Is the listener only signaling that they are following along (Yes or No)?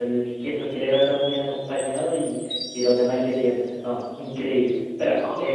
Yes